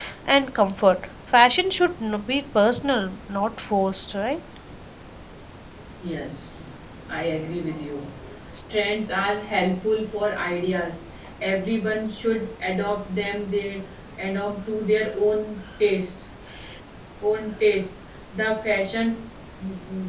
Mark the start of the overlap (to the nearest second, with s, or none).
none